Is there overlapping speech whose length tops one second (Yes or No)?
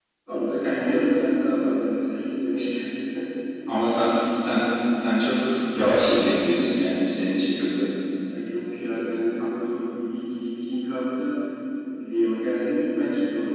No